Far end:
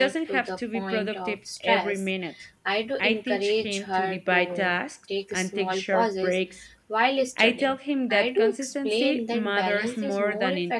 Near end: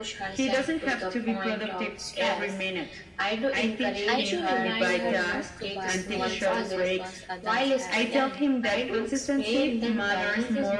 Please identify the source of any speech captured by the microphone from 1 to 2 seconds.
echo only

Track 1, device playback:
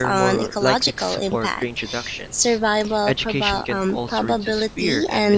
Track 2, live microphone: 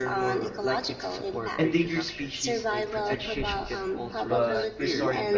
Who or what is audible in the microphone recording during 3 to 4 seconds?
both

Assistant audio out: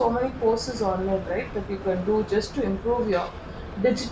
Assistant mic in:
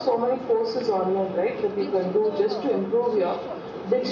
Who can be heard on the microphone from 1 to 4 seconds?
both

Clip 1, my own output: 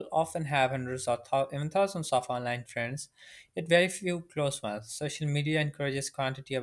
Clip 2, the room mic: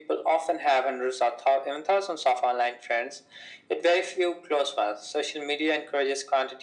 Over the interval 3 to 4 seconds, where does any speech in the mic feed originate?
echo only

